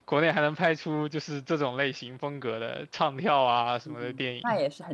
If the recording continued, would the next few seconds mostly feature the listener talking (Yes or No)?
Yes